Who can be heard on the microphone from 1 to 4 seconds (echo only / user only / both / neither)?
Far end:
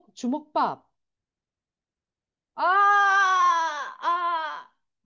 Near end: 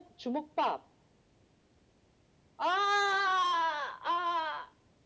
echo only